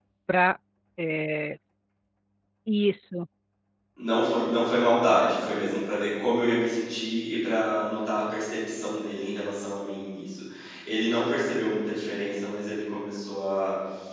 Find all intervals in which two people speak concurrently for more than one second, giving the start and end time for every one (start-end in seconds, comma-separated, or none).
none